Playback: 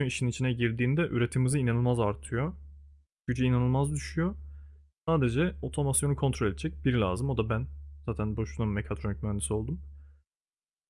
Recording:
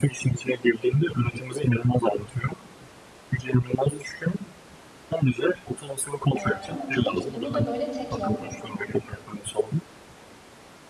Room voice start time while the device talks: 6.4 s

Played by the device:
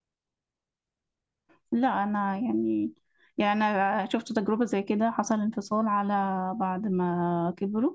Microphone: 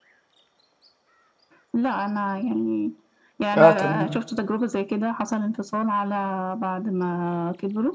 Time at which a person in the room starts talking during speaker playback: 3.5 s

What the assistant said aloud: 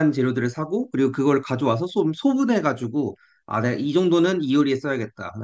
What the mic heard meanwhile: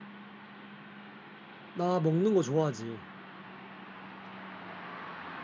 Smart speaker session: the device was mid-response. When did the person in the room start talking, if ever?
1.7 s

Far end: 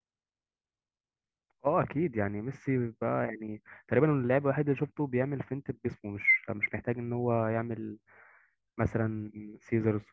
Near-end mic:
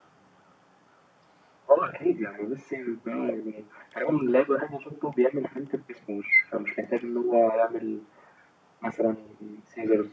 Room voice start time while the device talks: none

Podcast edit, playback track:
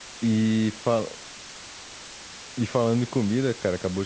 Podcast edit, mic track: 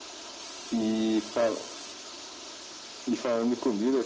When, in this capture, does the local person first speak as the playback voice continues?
none

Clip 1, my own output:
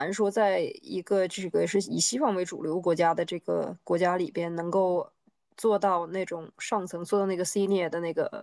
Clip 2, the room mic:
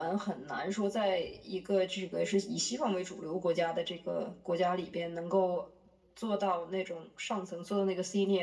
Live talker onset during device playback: none

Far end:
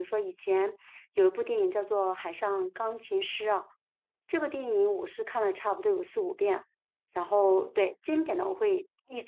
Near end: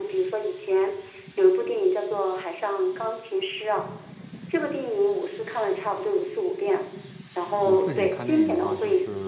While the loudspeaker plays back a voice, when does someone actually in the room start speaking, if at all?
7.6 s

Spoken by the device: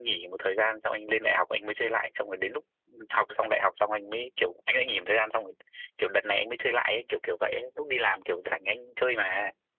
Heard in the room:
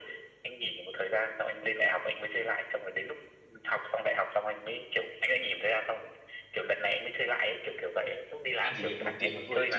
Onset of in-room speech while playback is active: 8.6 s

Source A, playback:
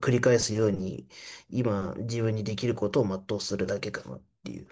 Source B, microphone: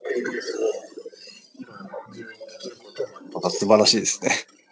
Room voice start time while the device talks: 3.4 s

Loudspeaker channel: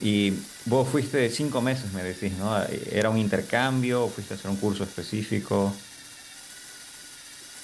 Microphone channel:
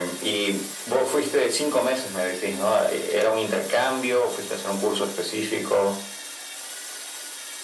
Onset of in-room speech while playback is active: none

